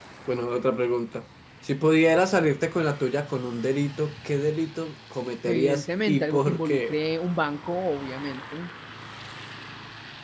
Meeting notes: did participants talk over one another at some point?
Yes, from 5.5 s

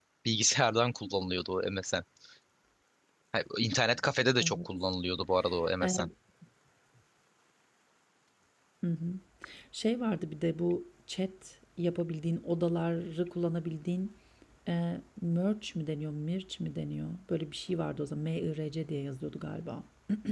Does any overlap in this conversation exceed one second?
No

